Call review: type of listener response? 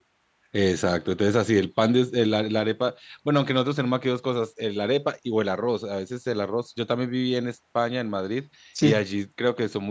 listening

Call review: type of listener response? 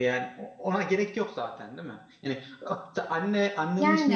listening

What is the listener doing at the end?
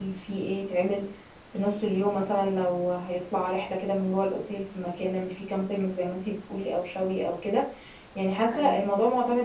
listening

